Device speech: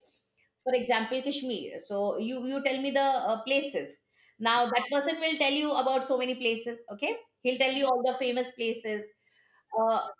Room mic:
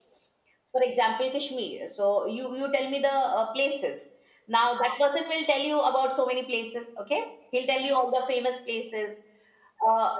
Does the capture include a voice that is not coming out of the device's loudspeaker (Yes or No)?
No